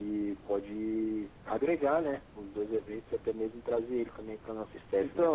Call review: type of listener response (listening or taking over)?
taking over